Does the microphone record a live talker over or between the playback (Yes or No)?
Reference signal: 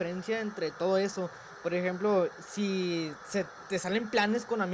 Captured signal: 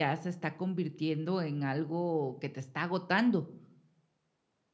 Yes